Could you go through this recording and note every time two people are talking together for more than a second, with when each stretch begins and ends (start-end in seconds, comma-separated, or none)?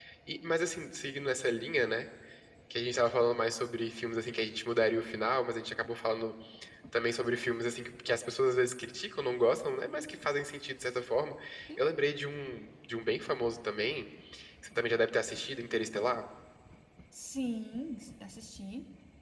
none